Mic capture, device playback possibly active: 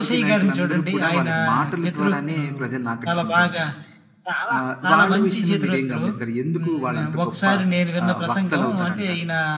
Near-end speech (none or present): present